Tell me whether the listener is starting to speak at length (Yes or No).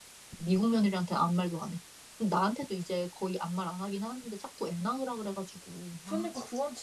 Yes